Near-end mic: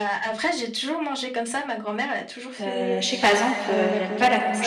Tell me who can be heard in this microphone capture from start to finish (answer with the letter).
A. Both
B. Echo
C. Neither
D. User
A